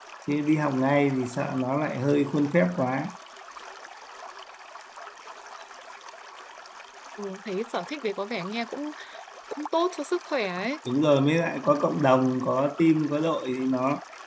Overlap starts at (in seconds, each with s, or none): none